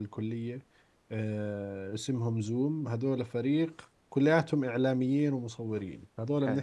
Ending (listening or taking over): listening